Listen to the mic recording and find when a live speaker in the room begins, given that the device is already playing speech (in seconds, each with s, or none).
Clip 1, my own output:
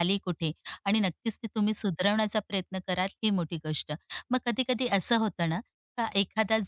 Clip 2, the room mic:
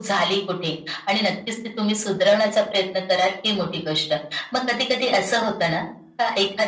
none